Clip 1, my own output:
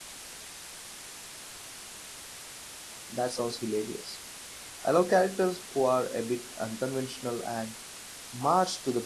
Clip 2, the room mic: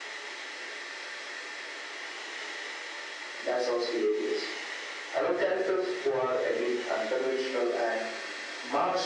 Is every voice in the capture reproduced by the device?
Yes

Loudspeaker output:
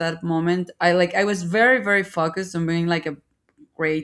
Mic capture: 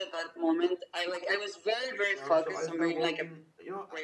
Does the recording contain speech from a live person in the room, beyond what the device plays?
Yes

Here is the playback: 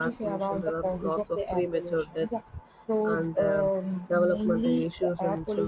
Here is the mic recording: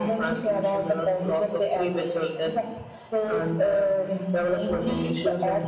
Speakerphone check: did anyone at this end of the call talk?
No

